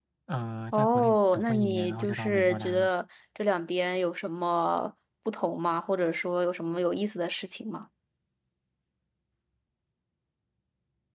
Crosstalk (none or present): present